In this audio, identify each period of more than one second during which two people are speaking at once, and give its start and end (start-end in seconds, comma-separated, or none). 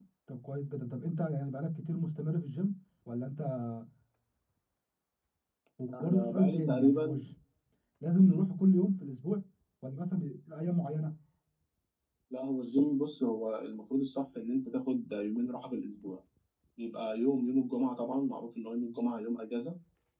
5.9-7.2